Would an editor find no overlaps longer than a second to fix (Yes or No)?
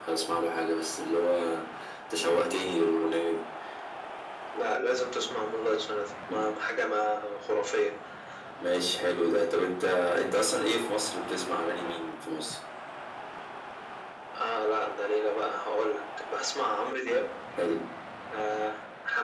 Yes